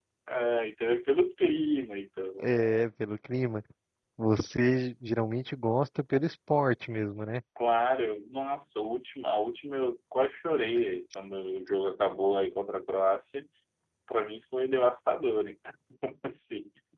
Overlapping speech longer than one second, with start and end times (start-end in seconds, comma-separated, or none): none